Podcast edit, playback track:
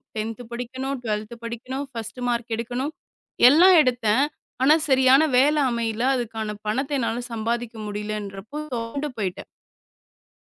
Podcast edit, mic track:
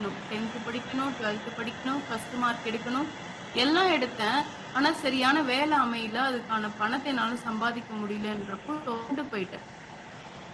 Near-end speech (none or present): none